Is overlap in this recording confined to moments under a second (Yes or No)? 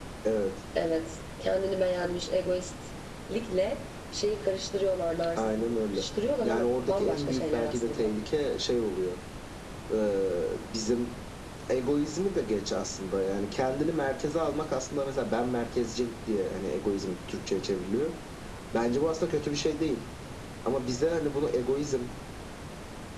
No